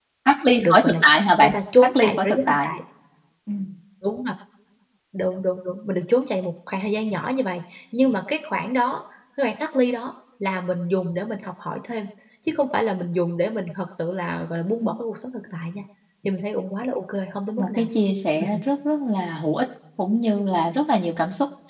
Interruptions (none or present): present